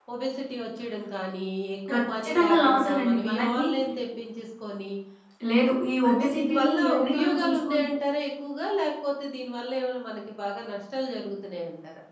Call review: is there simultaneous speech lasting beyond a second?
Yes, from 1.9 s

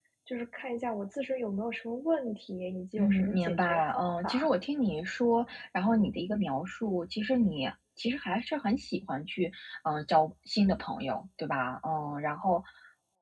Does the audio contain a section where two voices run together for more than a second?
Yes, from 3.0 s

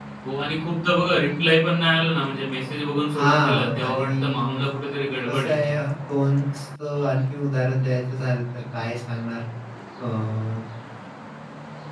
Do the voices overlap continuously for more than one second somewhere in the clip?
Yes, from 3.2 s

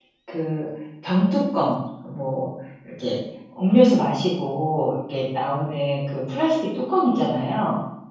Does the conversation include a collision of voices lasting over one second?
No

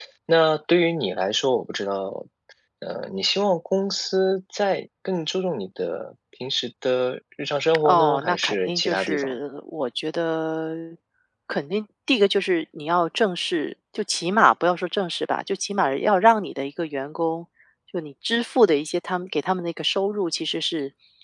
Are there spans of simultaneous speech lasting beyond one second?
Yes, from 7.7 s

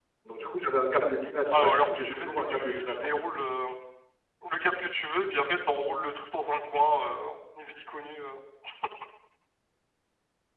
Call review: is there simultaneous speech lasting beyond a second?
Yes, from 1.5 s

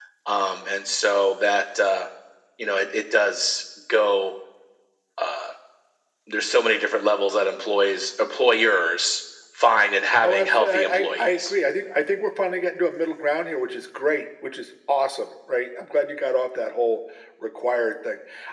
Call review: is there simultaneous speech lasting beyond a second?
Yes, from 10.2 s

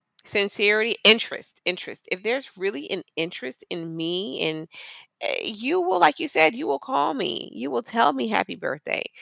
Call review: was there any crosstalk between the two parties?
No

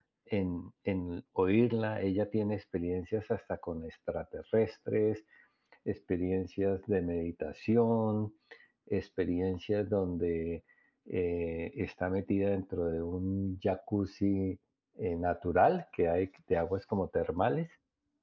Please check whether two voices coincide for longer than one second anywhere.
No

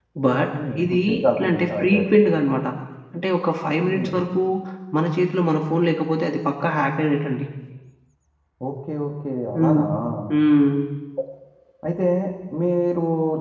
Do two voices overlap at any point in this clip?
Yes, from 0.6 s

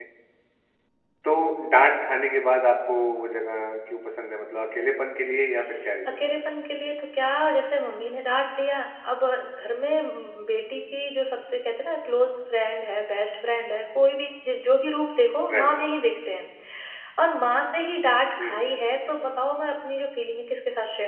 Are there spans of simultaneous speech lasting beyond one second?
No

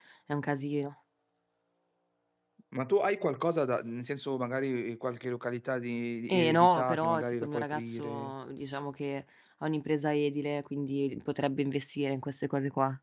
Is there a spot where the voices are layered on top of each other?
Yes, from 6.3 s

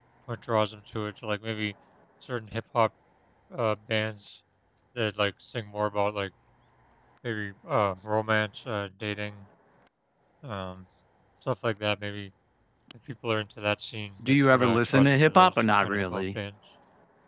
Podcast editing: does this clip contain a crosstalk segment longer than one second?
Yes, from 14.2 s

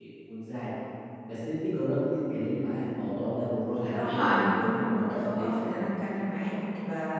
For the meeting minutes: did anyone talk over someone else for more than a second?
Yes, from 3.9 s

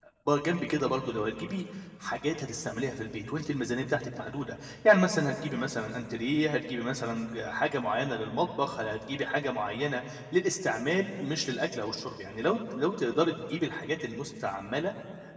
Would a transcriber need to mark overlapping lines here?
No

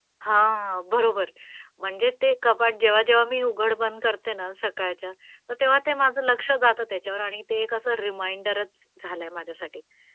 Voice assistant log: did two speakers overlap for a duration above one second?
No

